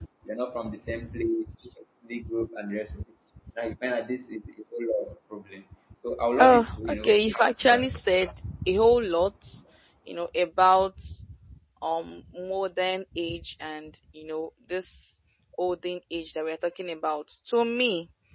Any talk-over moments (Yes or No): Yes